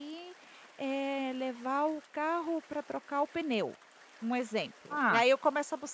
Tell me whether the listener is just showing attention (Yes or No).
Yes